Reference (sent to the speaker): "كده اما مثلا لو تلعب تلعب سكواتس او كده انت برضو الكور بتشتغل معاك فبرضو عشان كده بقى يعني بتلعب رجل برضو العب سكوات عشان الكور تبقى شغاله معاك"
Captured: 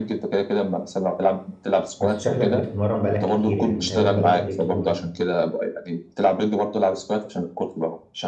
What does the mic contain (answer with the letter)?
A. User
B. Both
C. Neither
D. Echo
B